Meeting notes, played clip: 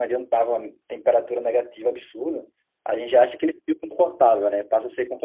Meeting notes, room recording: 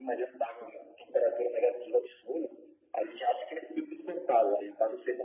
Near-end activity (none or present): none